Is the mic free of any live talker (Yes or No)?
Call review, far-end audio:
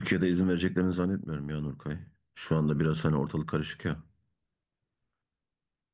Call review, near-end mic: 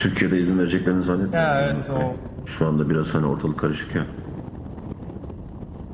No